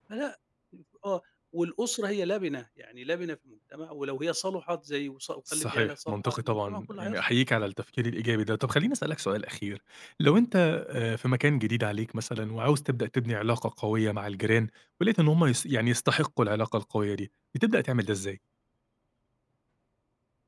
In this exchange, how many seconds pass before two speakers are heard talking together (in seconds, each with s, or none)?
5.5 s